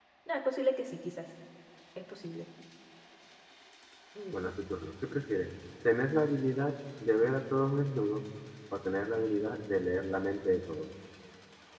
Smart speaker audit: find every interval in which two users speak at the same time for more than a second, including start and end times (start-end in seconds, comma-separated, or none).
none